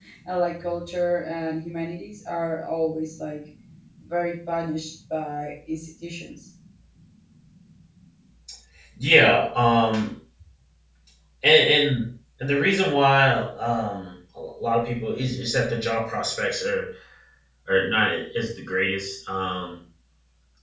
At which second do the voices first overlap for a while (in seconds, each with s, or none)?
none